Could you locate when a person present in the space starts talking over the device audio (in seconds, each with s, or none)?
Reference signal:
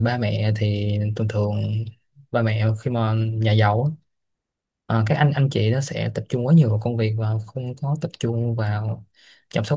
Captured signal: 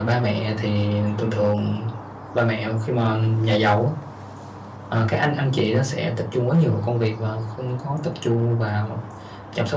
none